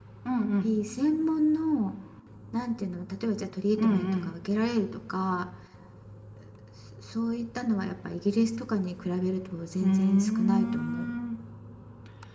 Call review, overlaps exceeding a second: present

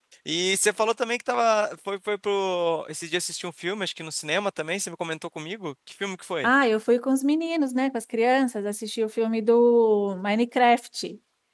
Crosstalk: none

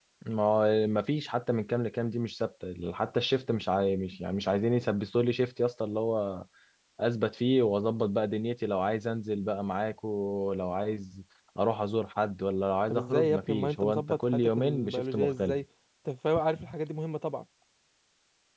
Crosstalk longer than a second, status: present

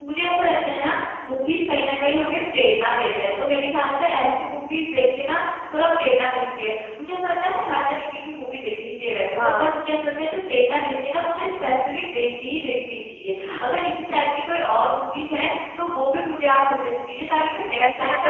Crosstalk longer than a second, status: none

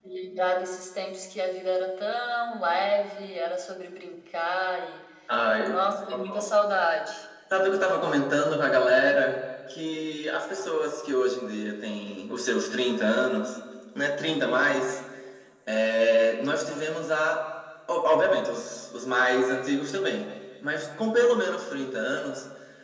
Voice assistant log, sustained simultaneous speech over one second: none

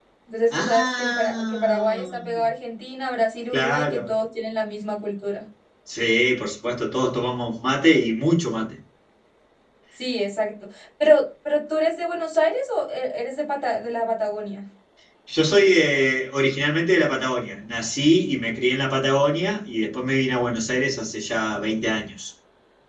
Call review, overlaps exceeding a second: present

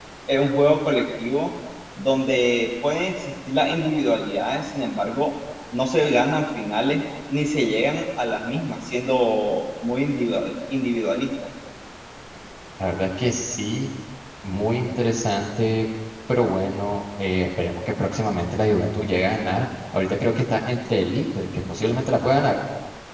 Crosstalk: none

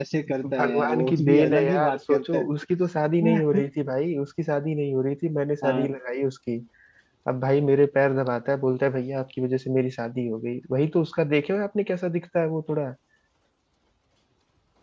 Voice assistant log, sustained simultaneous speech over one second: present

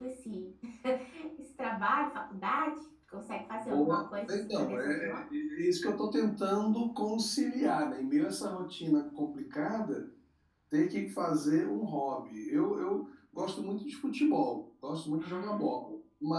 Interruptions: present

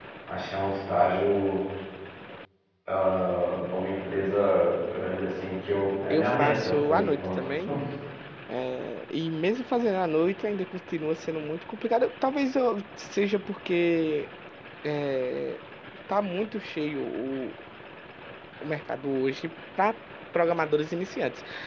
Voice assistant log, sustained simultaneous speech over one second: present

